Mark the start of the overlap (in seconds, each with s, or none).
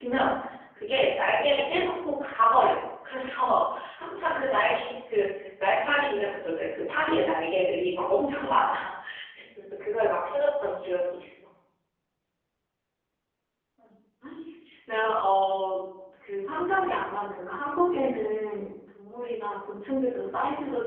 none